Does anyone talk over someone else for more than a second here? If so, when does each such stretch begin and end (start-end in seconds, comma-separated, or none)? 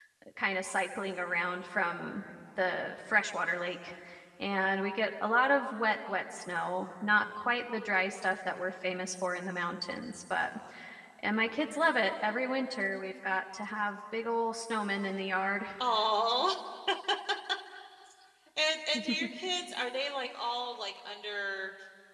none